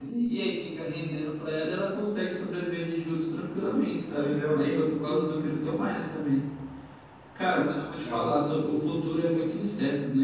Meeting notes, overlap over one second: present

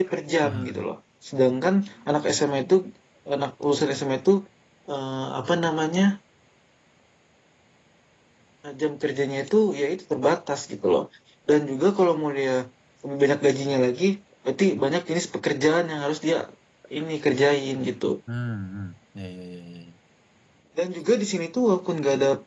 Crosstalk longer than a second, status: none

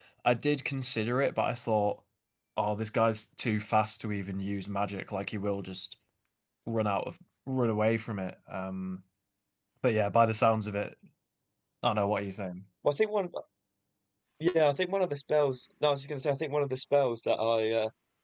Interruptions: none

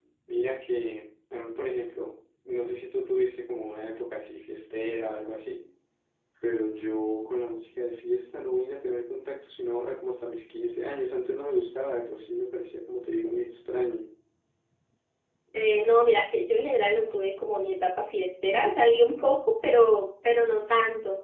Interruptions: none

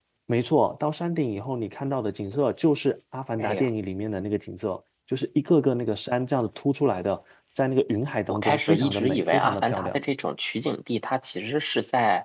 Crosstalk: present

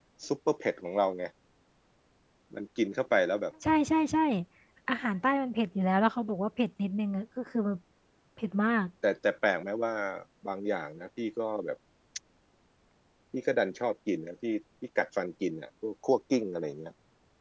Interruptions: none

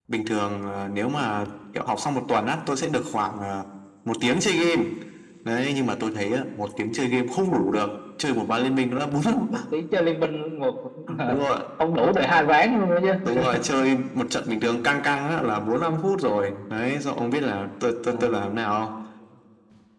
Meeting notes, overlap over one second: none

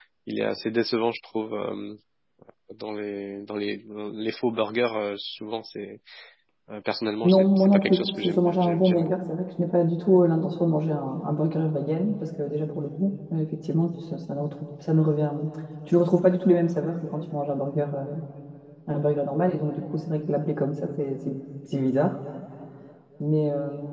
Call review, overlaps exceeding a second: present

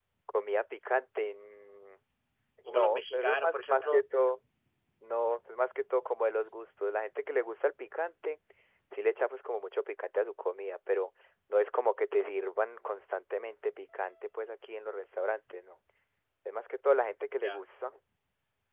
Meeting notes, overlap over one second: present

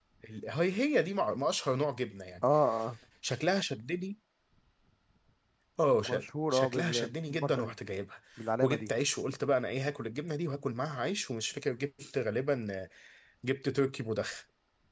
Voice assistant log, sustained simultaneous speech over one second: present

